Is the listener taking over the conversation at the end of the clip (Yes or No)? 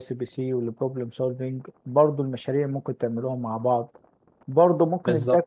No